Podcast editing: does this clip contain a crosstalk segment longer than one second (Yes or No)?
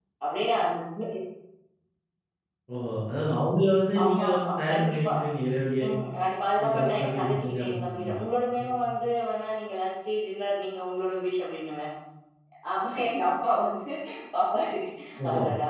Yes